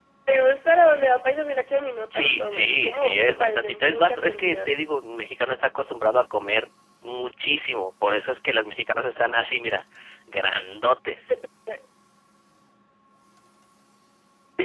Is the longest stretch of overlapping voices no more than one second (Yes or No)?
No